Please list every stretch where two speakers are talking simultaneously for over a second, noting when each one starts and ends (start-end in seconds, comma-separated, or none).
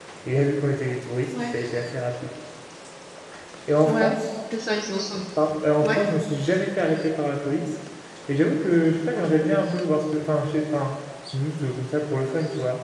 none